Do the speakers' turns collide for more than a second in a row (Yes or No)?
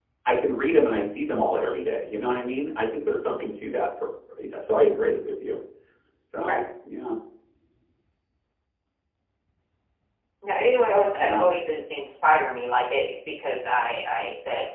No